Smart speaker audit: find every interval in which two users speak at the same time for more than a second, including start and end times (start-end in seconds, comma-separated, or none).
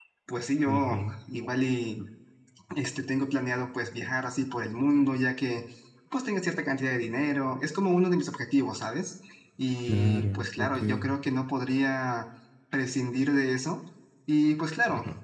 9.9-11.1